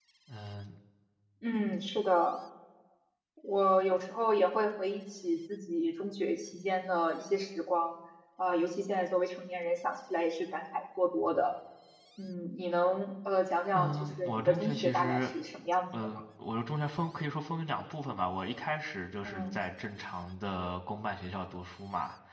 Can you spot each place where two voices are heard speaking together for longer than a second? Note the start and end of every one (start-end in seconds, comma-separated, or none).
13.7-15.3